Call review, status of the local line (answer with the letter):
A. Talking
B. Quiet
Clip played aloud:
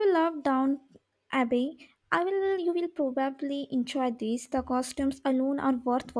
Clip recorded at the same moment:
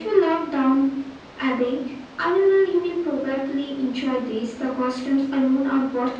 B